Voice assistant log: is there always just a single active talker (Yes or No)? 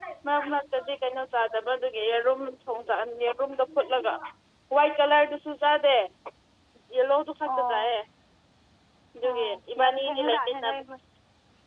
No